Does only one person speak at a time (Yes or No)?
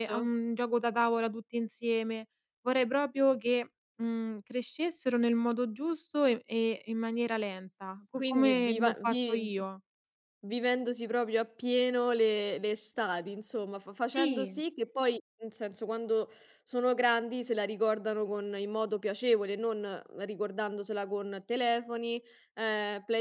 No